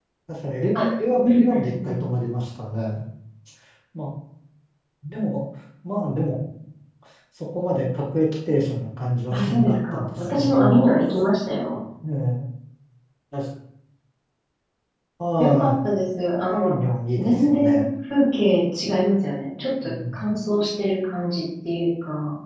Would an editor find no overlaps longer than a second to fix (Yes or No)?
No